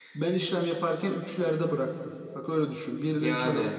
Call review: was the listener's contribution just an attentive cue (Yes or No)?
Yes